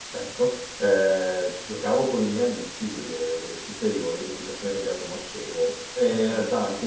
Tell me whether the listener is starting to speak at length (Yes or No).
No